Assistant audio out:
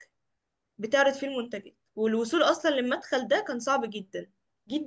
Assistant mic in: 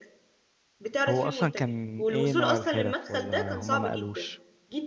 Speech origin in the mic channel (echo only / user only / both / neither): both